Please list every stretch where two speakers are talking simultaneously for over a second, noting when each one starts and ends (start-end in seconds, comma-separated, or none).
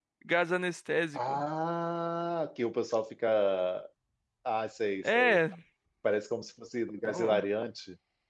none